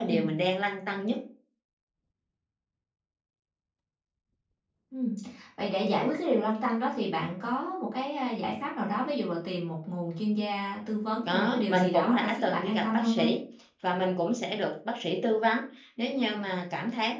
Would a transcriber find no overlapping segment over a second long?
No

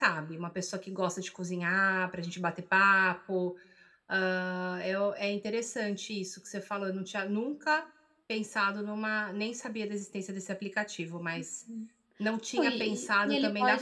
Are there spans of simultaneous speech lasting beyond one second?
Yes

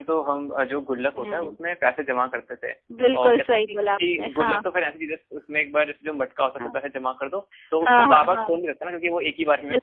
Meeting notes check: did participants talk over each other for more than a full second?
Yes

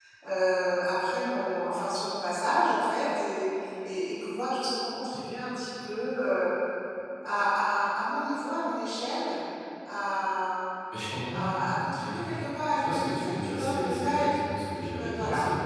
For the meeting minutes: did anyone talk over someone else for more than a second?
Yes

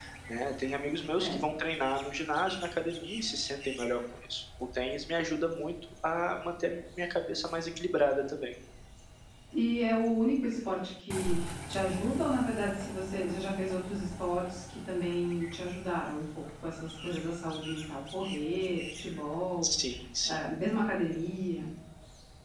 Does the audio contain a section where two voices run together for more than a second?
No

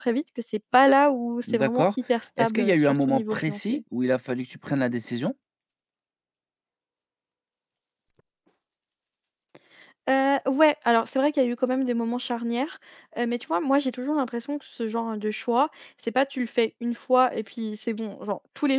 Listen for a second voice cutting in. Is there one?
Yes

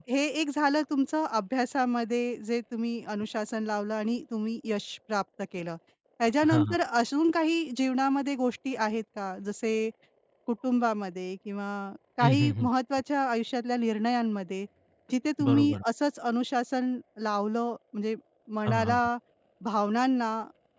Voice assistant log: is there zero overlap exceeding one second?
Yes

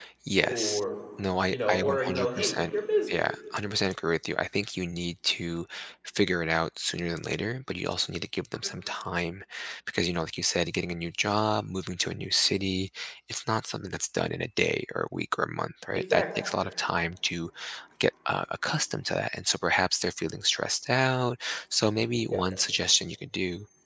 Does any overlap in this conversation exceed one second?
Yes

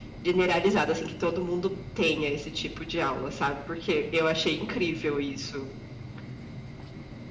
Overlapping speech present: No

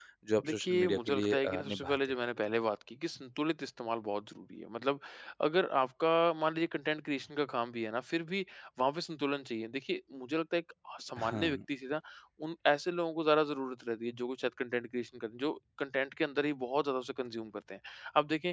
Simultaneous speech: Yes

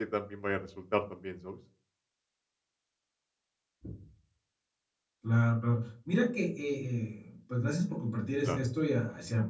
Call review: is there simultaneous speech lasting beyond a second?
No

